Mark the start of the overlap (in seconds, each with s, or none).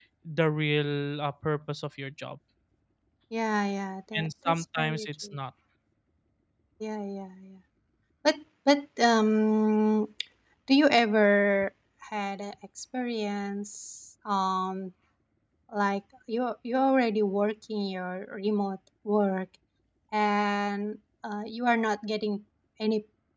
4.1 s